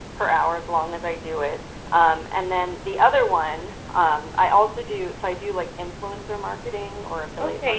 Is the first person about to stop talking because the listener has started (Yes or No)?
Yes